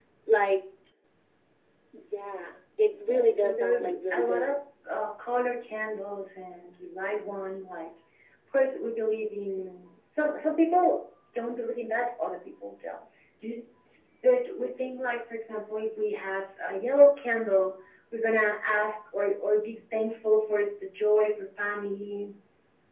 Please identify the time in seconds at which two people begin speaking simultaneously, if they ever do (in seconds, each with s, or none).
3.1 s